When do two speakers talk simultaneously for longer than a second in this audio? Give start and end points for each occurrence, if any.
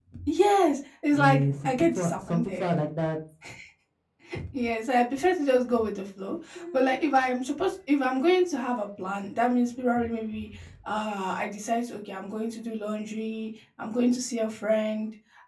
1.1-2.6

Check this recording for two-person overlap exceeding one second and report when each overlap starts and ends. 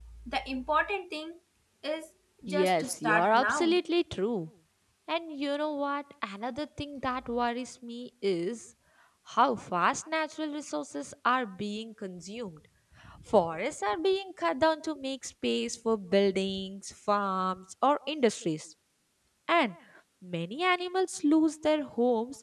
2.5-3.8

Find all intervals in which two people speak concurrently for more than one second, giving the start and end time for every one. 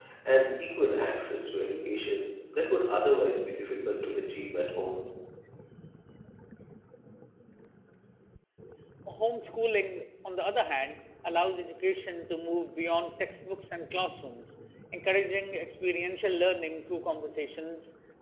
none

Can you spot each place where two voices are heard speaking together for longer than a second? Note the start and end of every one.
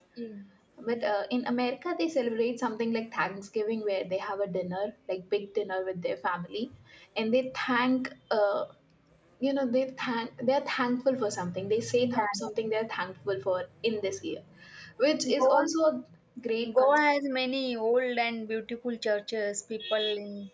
none

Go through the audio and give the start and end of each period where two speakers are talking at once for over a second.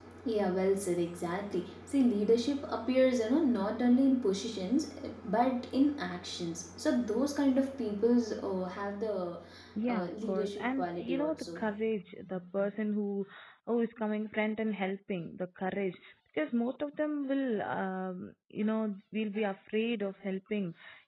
9.9-11.6

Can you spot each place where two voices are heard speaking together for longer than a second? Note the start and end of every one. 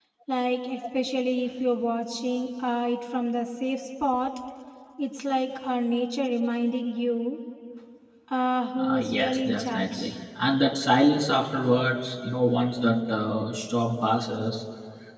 8.8-10.1

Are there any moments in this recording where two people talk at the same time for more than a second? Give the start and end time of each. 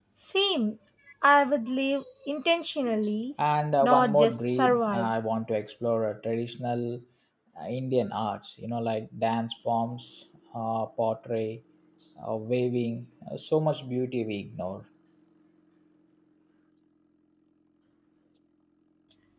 3.8-5.1

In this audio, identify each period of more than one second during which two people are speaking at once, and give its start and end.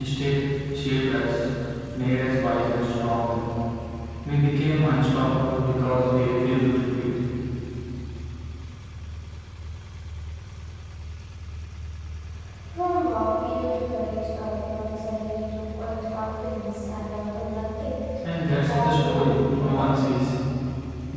18.4-19.9

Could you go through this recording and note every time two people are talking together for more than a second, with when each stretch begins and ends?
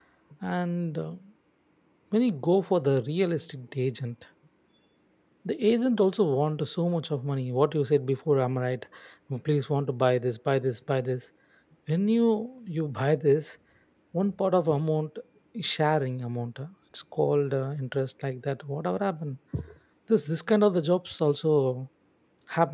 none

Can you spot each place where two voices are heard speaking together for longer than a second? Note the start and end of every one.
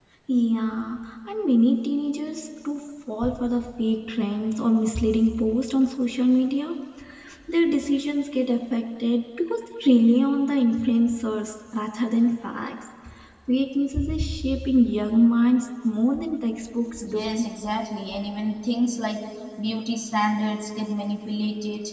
none

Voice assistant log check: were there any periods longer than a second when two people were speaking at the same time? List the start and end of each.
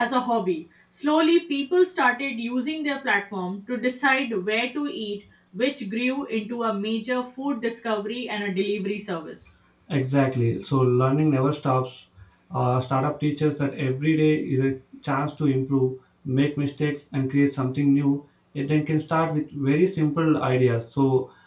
none

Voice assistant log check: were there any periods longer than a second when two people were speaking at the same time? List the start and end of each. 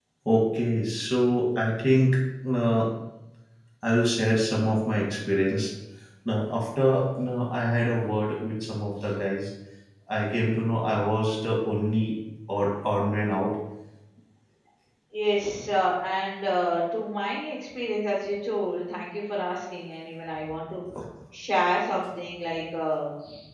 none

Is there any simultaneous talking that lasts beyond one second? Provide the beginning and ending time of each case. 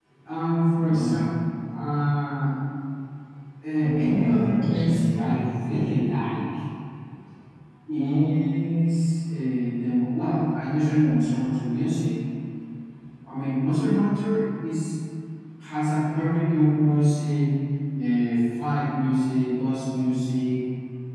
3.8-5.5

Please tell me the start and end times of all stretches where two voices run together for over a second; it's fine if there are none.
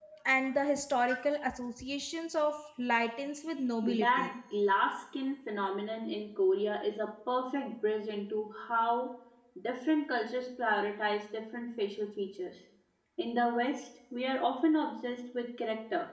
none

